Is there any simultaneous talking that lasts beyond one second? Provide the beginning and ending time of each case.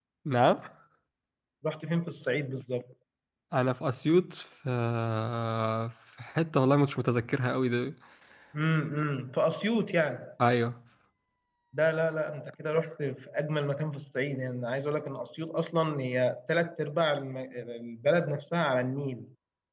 none

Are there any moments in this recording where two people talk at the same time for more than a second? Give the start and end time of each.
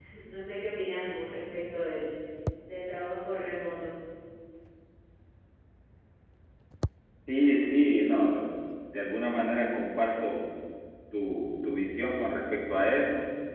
none

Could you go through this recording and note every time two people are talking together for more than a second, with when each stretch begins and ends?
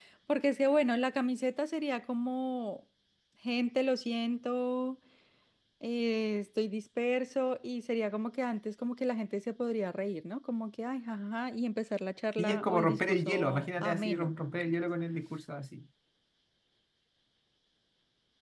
12.4-14.3

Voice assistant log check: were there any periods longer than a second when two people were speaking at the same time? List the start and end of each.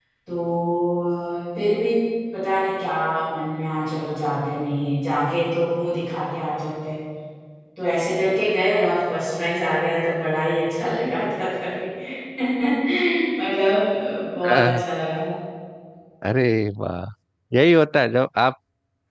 none

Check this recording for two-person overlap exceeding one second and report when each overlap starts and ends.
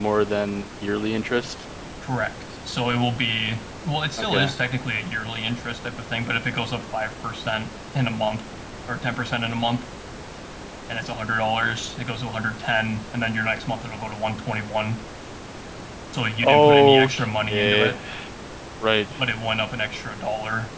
16.4-18.0

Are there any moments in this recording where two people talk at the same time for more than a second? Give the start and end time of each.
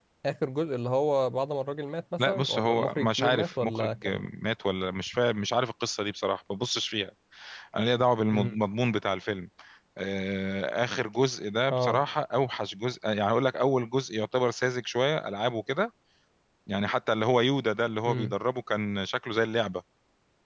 2.2-4.1

